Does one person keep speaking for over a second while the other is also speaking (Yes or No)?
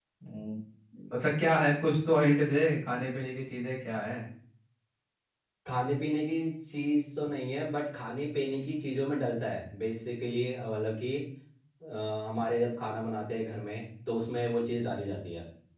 No